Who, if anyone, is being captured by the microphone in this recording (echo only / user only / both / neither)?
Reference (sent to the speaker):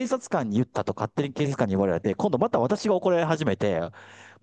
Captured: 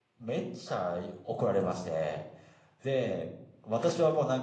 user only